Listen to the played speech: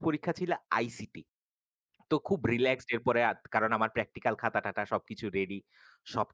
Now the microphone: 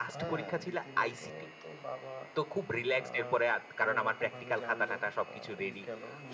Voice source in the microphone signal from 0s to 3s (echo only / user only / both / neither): both